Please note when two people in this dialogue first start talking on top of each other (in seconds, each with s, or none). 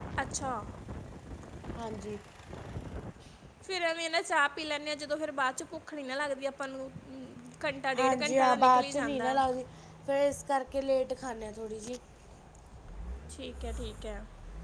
8.0 s